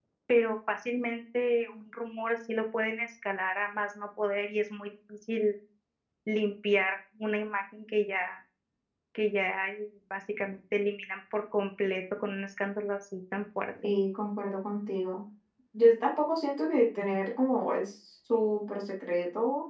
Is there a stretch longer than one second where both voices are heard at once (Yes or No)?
No